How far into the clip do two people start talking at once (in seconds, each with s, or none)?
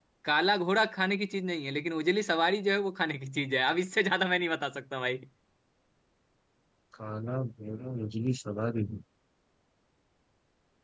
none